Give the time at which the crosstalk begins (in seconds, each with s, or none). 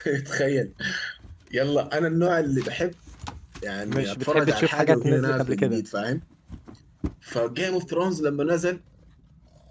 3.9 s